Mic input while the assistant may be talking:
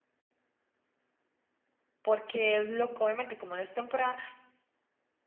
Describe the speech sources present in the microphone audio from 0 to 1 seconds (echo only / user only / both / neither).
neither